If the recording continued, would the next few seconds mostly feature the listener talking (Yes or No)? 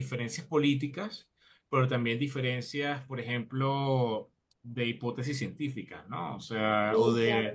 No